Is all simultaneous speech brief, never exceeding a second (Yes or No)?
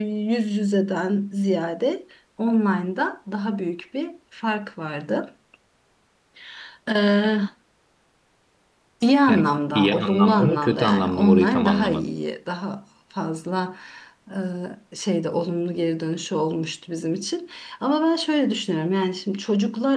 No